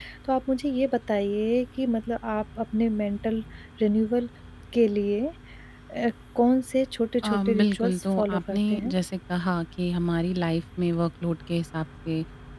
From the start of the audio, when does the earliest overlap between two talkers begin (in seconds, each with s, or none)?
7.2 s